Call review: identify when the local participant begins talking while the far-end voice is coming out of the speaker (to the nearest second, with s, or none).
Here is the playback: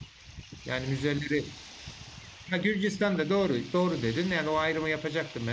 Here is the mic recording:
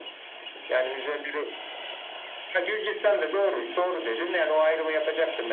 none